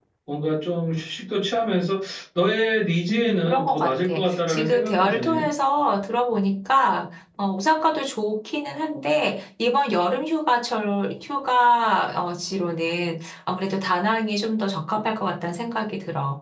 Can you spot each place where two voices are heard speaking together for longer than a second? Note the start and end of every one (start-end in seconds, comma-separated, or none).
3.1-5.5